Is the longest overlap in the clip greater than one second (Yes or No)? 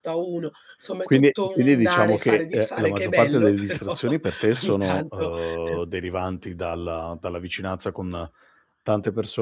Yes